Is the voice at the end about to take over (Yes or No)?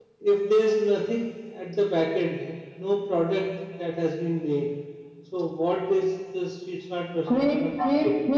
Yes